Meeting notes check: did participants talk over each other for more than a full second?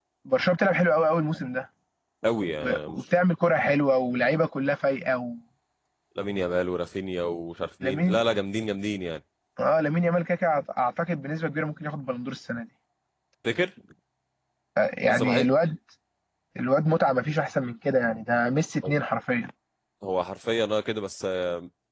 No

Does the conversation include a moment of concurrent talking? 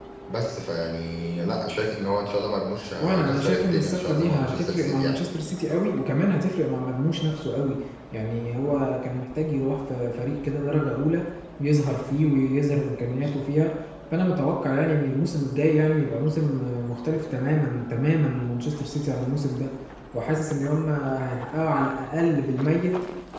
Yes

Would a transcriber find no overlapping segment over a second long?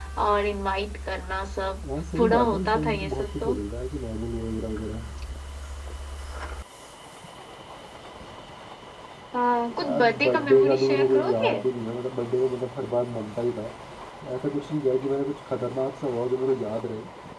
No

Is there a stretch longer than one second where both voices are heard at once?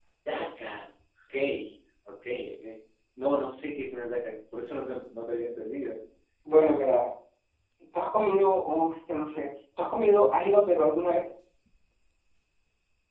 No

